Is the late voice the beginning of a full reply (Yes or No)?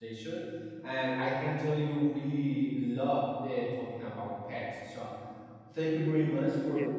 No